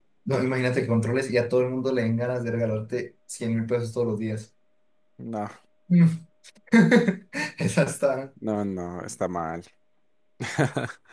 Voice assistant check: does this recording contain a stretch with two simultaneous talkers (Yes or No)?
No